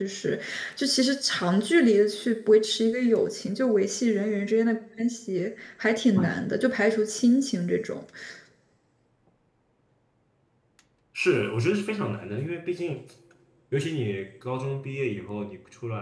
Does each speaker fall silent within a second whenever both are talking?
Yes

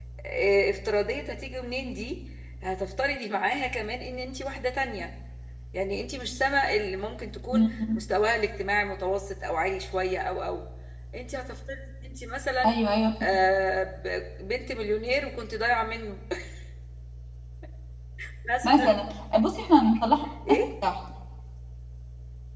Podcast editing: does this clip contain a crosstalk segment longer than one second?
No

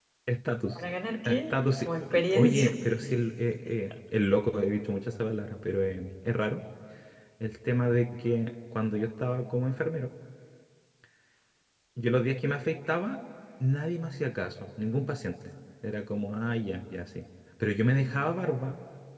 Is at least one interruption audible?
Yes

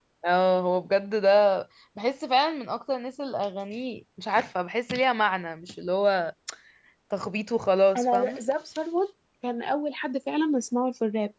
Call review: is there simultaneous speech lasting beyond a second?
No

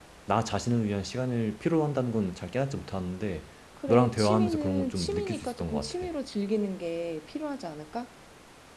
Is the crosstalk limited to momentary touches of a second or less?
No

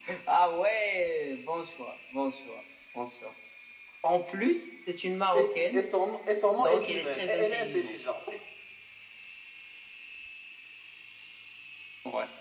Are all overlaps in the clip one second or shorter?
No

